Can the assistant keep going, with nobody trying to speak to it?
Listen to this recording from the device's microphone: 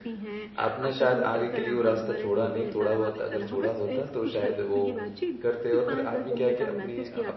No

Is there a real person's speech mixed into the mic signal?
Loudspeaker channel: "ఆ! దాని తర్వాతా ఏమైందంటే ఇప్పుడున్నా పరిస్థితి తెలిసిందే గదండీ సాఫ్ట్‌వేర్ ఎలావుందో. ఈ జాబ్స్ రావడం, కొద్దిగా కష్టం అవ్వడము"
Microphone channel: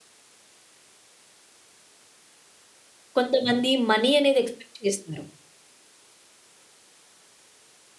Yes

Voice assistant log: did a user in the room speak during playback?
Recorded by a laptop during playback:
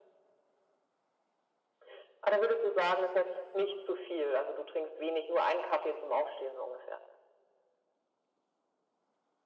No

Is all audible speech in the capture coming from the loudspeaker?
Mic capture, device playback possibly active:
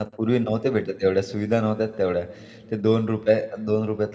No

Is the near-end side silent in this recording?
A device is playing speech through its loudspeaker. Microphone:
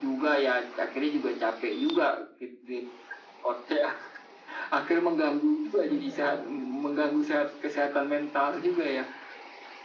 No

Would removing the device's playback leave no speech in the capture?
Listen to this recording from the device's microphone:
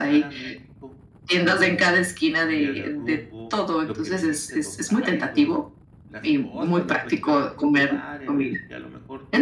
No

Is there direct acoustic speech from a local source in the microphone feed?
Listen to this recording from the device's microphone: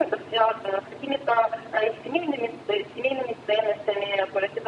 No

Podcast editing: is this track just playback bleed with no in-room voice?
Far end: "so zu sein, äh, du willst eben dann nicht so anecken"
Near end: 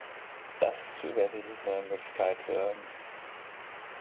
No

